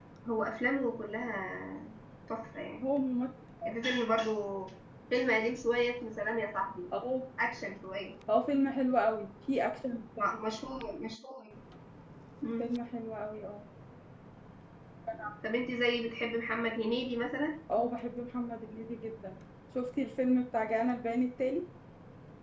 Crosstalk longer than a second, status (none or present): none